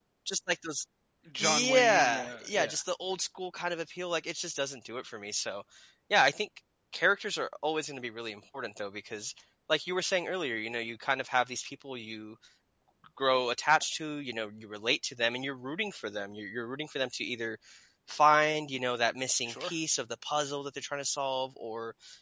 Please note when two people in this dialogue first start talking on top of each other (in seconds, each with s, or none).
1.4 s